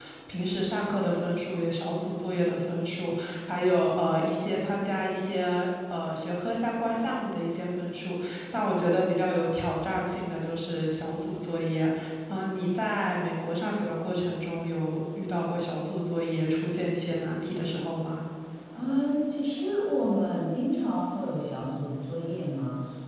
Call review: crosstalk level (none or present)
none